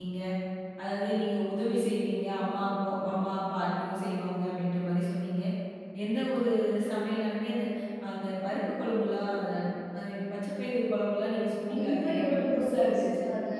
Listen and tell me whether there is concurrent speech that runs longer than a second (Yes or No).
Yes